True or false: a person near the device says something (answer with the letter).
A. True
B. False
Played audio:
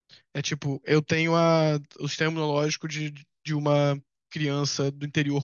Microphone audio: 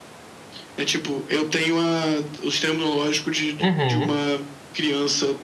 A